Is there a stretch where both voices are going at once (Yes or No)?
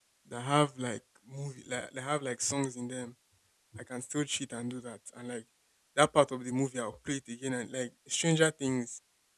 No